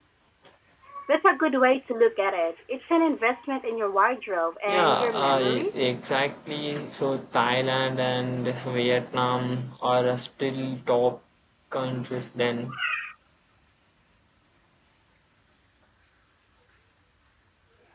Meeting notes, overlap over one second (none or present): present